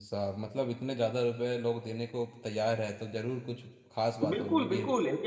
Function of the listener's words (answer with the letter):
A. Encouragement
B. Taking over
B